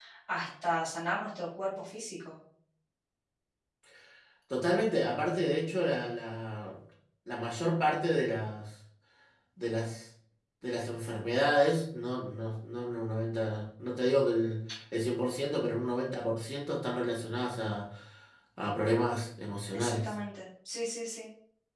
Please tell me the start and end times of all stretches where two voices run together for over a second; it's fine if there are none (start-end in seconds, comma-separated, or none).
none